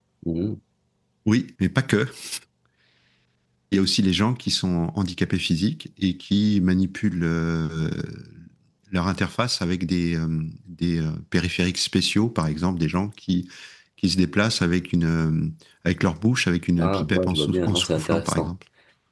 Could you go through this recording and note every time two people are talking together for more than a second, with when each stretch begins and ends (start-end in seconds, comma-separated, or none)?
16.8-18.5